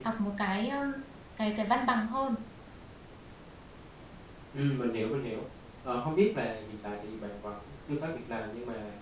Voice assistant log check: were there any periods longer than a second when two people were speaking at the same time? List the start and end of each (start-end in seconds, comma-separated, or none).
none